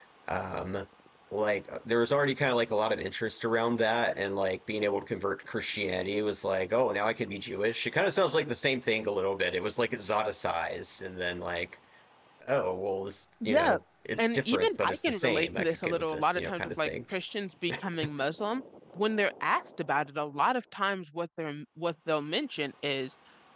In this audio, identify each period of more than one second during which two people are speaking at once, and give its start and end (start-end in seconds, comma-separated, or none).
14.2-16.9